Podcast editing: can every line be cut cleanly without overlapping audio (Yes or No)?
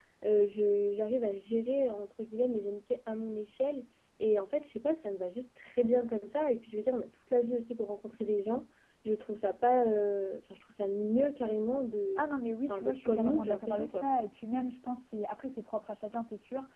No